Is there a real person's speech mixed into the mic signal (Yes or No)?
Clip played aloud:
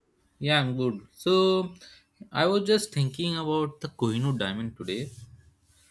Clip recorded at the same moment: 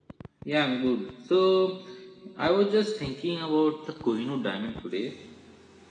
No